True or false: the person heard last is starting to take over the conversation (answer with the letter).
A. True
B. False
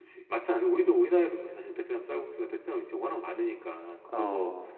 B